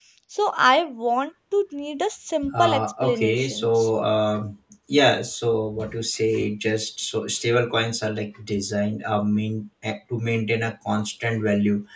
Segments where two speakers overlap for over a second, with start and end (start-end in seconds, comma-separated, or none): 2.5-3.9